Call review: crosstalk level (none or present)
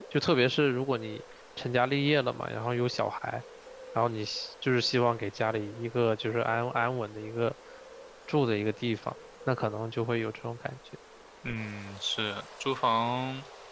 none